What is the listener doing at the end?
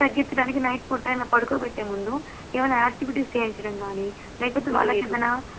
listening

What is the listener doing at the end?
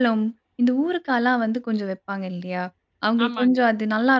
listening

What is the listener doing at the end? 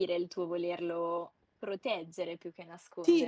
taking over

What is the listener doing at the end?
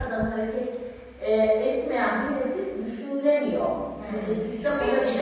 taking over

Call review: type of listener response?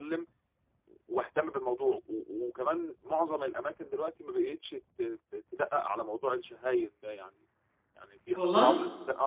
listening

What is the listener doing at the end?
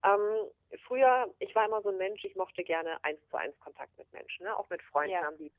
listening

